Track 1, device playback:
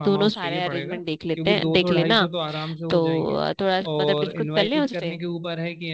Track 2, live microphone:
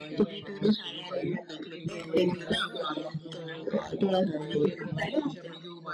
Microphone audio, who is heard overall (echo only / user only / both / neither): both